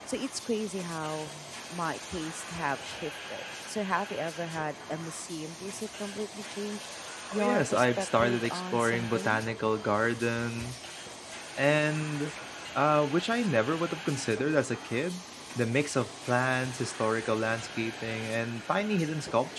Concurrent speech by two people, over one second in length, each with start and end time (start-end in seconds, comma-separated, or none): 7.3-9.4